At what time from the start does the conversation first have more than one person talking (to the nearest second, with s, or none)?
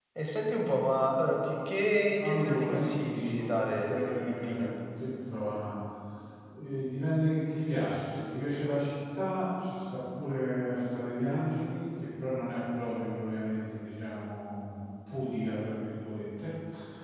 2 s